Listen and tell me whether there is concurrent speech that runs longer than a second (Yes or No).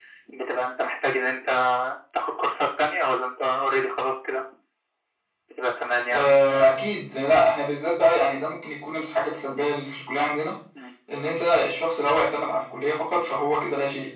No